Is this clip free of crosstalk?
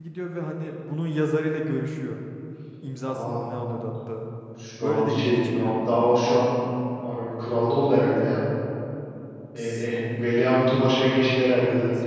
No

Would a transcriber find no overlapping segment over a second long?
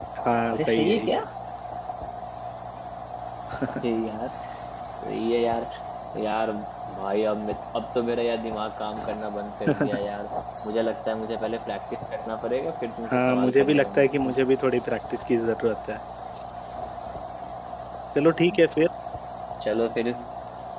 No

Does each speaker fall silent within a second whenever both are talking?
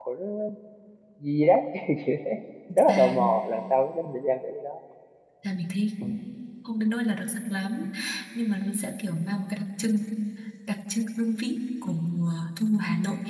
Yes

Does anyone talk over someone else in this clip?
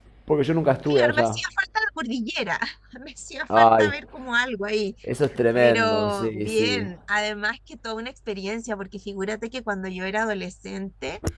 Yes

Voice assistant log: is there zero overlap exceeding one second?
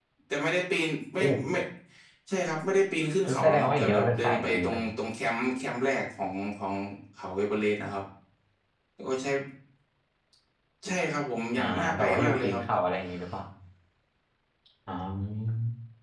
No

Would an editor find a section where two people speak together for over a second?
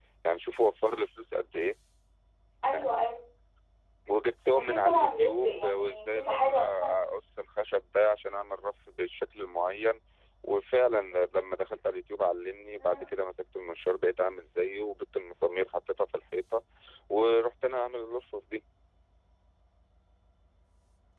Yes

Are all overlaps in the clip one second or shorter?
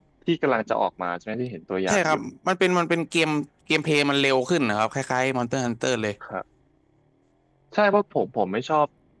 Yes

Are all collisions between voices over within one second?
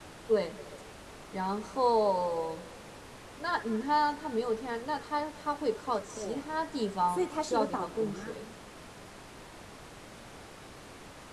No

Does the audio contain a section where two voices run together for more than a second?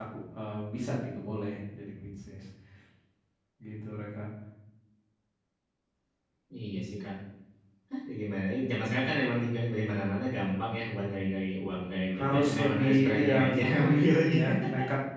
Yes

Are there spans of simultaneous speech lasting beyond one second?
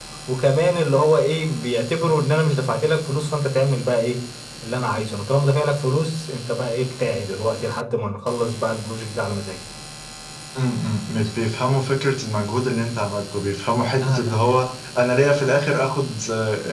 No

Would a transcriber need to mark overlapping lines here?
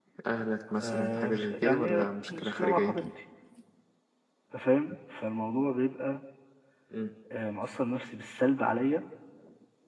Yes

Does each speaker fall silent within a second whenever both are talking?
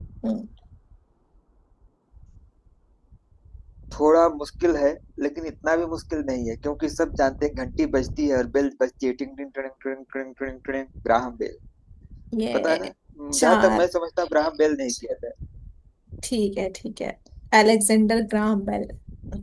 Yes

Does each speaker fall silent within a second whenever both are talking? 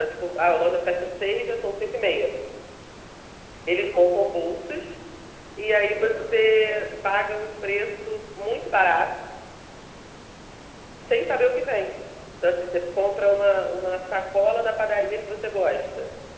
No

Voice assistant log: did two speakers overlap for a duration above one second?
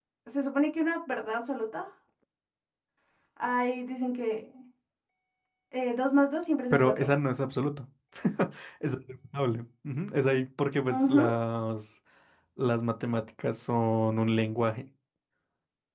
No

